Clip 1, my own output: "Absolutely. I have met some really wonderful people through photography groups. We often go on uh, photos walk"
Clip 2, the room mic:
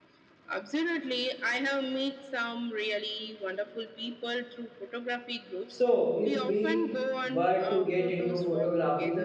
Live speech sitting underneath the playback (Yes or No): No